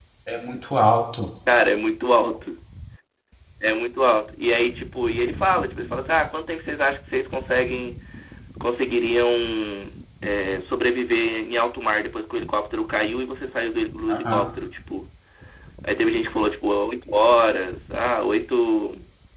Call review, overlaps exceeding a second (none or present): none